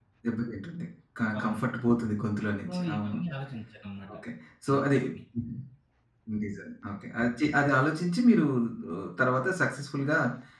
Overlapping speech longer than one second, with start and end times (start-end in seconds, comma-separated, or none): none